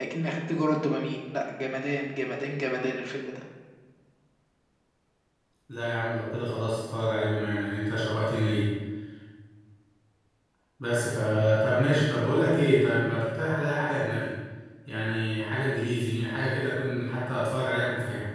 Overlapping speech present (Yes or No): No